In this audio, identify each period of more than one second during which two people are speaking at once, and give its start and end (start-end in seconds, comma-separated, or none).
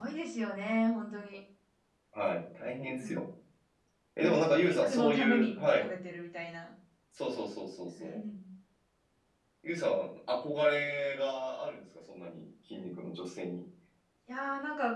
4.2-5.8